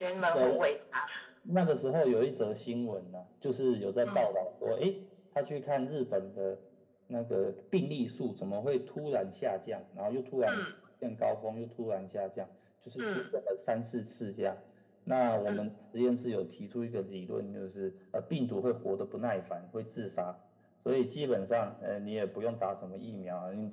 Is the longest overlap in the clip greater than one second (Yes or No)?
No